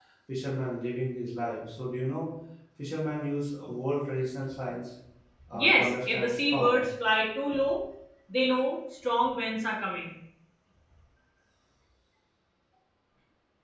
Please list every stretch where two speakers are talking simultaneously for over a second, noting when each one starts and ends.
5.5-6.9

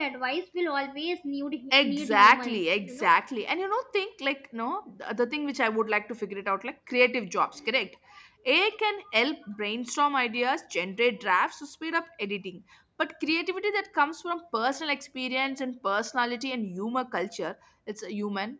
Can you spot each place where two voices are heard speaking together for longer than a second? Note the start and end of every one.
1.8-3.1

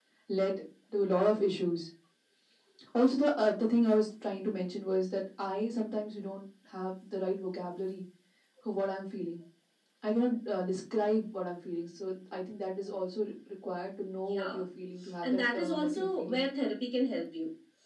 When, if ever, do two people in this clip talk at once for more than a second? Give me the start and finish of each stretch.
15.2-16.4

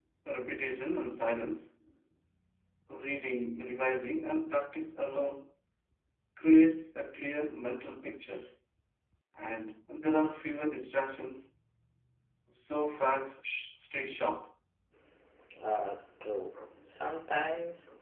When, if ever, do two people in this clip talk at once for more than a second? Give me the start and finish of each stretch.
none

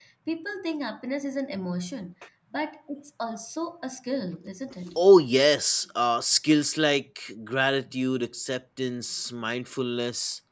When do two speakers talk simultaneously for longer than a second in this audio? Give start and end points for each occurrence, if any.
none

